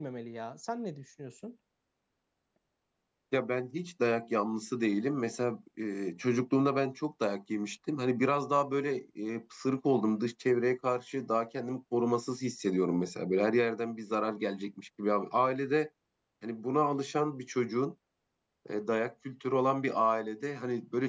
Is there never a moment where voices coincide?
Yes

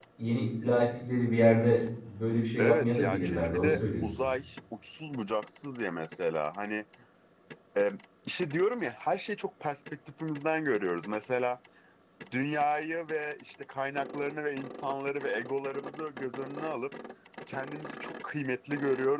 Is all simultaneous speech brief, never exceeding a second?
No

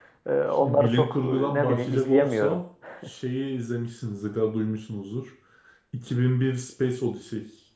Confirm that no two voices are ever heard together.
No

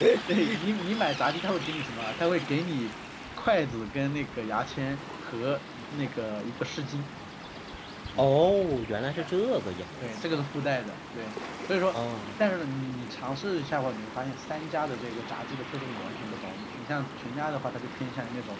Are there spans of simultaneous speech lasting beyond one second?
No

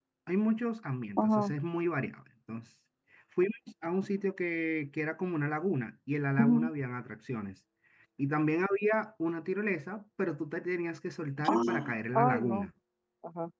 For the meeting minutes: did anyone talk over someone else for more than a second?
Yes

